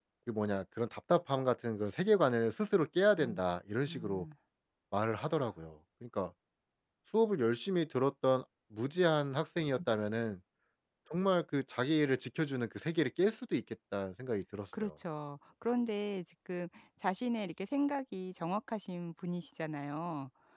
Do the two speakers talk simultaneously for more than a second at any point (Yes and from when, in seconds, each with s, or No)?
No